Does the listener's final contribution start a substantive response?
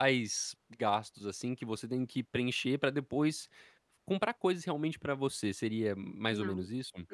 Yes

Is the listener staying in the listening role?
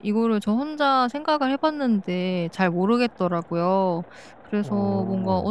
Yes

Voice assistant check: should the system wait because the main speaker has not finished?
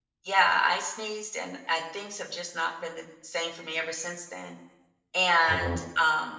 Yes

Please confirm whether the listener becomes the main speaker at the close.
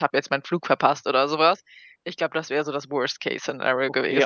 Yes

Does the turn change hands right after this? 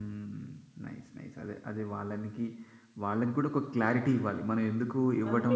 No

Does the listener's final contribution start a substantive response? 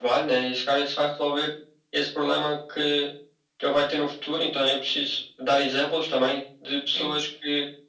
No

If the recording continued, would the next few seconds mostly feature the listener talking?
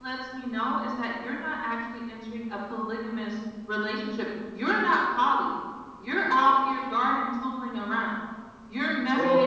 No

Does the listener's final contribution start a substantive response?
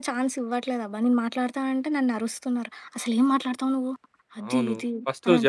Yes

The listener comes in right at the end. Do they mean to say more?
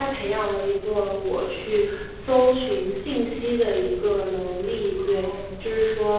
No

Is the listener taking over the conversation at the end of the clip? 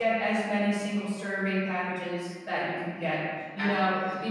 No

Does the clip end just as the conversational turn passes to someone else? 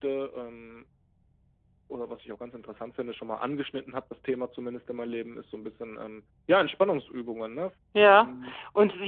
Yes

